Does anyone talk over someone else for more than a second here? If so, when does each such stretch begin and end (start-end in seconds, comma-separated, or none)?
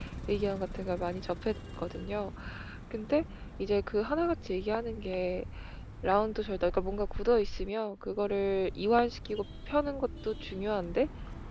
none